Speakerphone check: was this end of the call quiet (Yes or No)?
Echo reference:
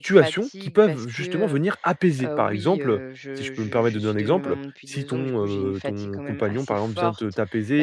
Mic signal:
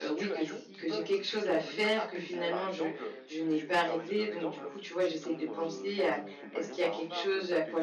No